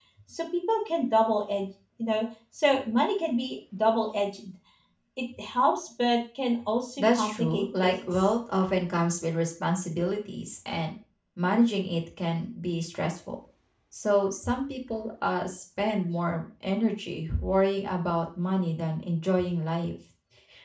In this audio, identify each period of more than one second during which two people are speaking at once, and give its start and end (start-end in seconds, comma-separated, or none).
7.0-8.3